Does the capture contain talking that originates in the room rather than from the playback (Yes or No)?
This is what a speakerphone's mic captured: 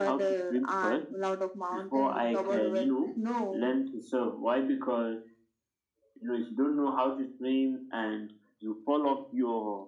No